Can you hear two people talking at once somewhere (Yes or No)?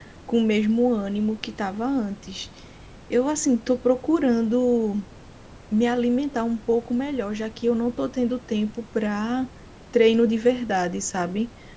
No